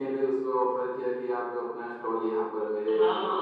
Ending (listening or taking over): taking over